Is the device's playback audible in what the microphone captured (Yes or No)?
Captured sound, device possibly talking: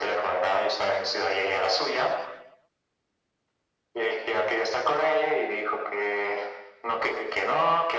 Yes